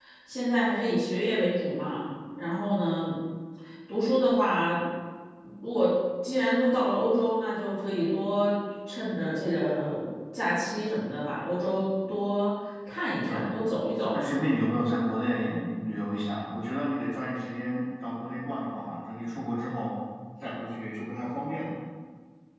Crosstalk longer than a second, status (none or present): none